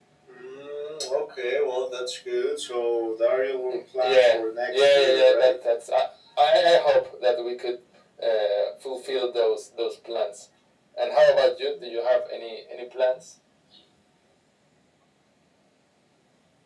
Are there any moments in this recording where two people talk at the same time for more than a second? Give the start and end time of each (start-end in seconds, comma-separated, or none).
3.7-5.5